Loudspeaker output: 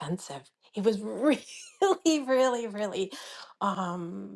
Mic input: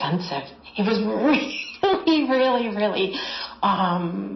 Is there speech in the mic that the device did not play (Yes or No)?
No